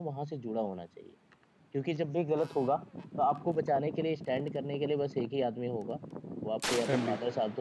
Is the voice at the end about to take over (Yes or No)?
No